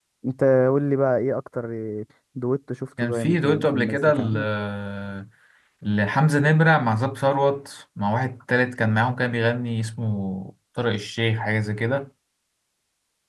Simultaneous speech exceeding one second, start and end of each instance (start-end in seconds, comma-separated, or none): 3.0-4.5